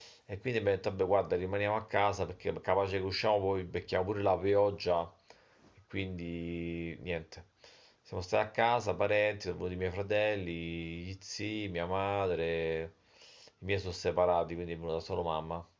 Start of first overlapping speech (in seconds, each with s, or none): none